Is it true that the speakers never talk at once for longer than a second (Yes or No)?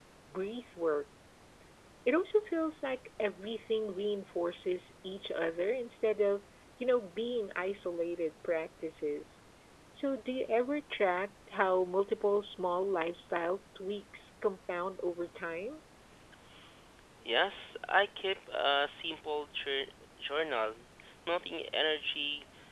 Yes